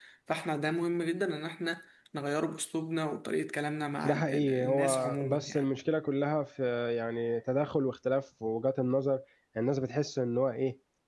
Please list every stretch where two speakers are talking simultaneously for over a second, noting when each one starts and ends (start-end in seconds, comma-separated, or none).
4.0-5.6